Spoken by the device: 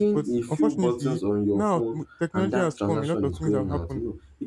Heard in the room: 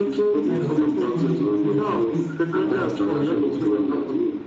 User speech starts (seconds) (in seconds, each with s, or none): 0.5 s